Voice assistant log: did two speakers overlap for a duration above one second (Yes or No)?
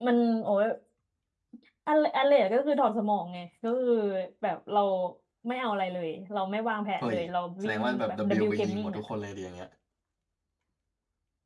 Yes